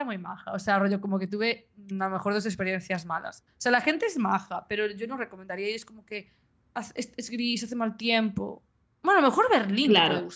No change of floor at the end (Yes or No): No